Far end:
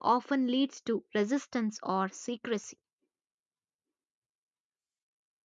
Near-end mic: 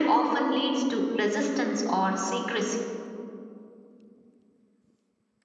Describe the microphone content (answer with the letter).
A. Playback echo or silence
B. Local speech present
A